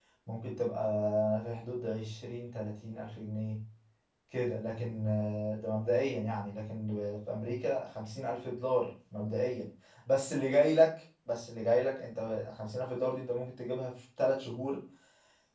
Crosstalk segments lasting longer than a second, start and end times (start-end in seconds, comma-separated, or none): none